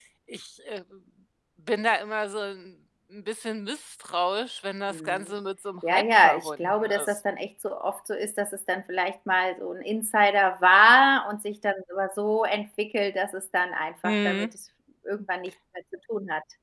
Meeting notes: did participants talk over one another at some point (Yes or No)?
Yes